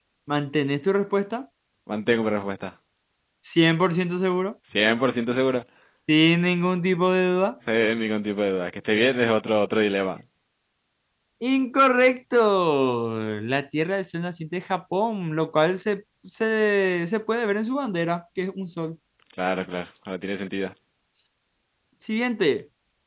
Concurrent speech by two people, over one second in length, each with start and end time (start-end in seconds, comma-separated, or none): none